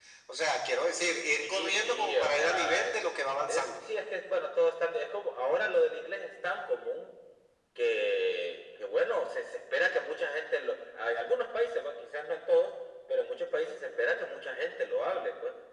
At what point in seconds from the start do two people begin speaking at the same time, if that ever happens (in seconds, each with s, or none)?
1.4 s